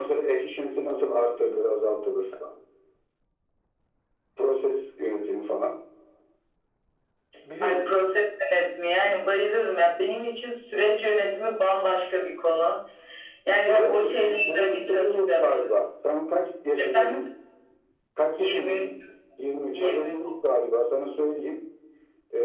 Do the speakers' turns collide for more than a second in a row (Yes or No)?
Yes